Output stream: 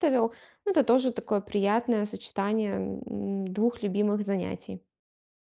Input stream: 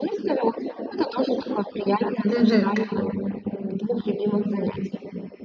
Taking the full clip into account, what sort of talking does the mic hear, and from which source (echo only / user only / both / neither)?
both